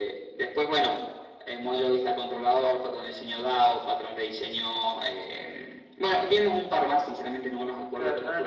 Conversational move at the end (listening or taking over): taking over